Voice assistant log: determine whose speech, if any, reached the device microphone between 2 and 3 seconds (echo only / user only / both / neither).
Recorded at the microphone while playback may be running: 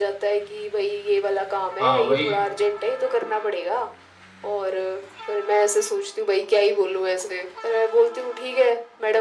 both